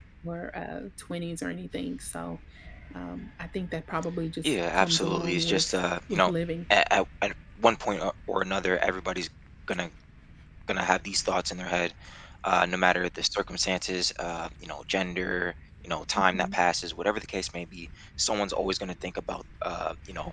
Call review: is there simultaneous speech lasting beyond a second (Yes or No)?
Yes